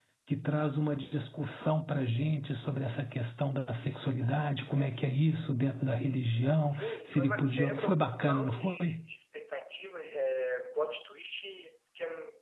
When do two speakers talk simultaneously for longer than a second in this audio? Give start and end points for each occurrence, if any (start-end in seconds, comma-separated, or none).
6.7-9.0